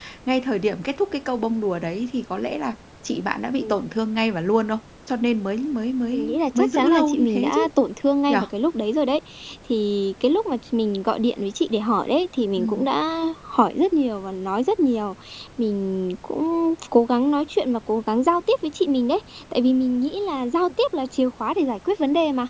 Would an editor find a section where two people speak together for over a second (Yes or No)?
Yes